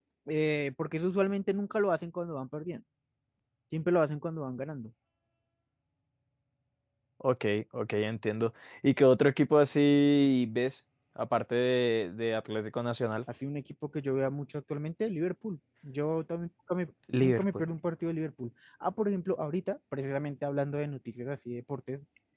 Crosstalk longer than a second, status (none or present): none